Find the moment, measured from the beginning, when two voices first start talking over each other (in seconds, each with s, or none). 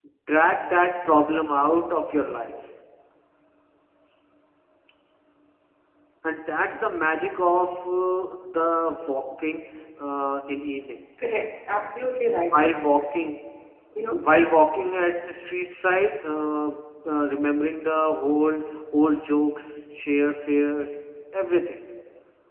none